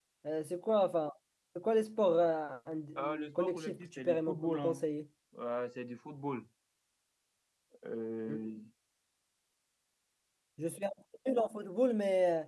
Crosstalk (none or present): present